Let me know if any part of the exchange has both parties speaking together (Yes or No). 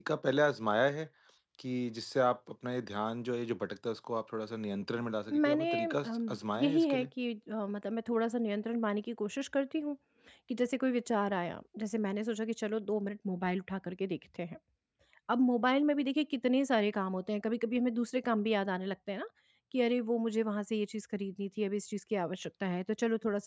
Yes